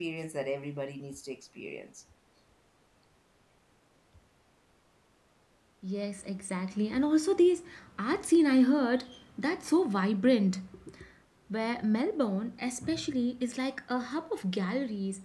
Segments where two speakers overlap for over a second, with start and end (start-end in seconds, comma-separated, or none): none